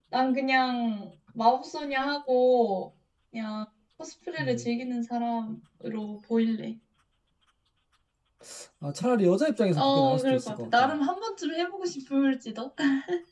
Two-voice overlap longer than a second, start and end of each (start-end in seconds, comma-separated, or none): 9.8-11.0